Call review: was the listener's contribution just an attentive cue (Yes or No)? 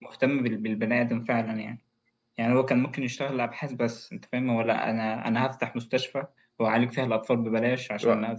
Yes